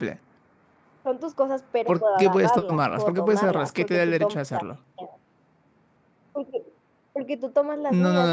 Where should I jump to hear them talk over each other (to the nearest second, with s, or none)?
2 s